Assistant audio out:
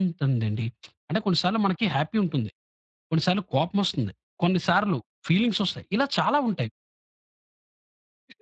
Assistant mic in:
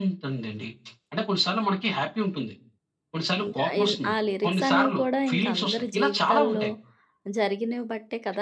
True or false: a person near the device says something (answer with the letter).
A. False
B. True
B